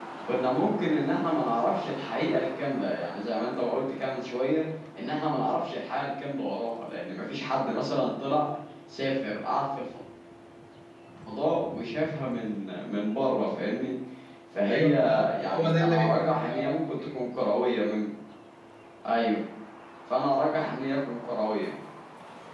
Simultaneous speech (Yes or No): Yes